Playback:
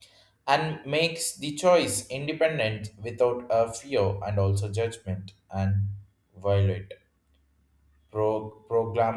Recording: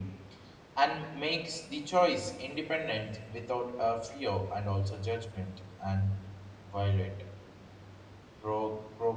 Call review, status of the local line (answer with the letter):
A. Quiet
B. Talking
A